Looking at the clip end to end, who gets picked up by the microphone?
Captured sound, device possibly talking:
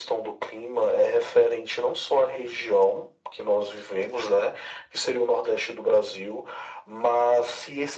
echo only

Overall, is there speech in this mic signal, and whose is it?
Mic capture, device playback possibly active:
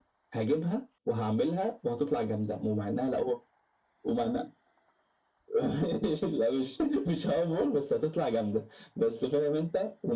echo only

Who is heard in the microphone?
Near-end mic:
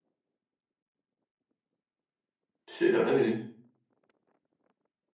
user only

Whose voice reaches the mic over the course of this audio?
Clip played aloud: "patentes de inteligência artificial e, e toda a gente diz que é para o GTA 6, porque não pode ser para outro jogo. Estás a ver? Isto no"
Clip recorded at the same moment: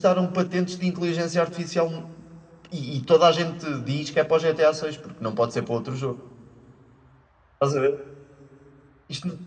echo only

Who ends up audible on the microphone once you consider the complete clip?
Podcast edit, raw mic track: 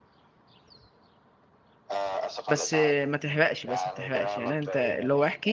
both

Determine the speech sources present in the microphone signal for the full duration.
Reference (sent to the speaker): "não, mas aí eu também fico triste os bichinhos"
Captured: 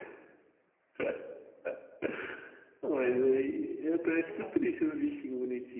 both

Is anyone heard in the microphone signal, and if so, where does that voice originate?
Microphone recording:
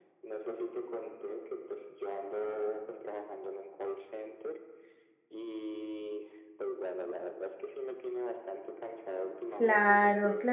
both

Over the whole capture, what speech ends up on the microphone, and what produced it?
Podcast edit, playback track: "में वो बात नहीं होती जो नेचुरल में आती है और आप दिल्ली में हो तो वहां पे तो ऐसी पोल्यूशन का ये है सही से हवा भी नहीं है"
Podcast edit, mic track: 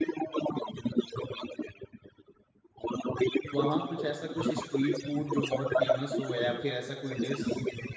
both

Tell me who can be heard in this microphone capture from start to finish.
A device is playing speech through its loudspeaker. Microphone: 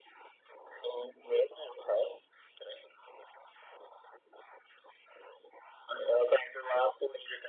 echo only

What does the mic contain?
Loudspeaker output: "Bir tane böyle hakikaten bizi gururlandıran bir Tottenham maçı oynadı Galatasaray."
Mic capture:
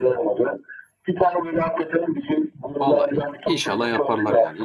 both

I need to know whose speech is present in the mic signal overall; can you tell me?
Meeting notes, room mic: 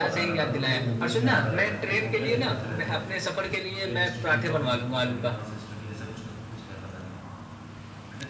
both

